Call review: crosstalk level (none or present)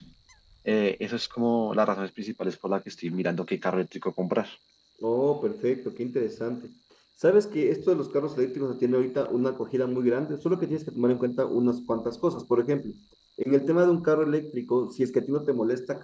none